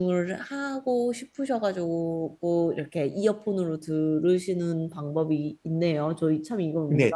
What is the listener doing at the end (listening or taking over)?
taking over